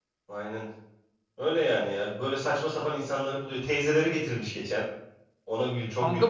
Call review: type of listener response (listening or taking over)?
taking over